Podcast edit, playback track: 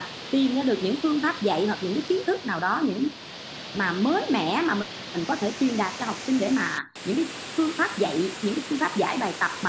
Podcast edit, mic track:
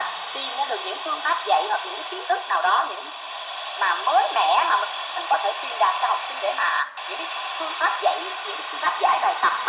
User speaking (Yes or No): No